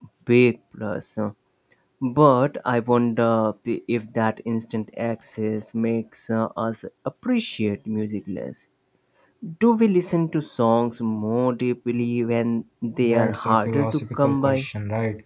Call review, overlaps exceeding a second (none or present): present